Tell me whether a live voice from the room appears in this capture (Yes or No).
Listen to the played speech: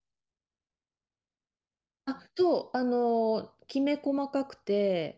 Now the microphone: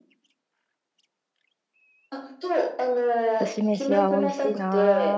Yes